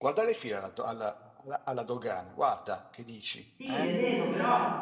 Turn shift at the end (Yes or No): Yes